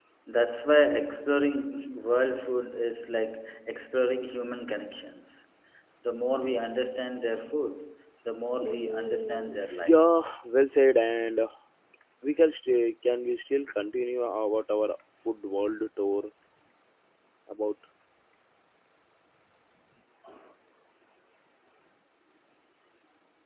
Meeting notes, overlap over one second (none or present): present